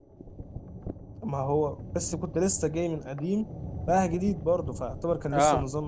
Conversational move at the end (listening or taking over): taking over